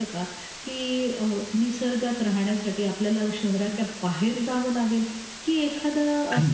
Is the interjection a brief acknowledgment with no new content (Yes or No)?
Yes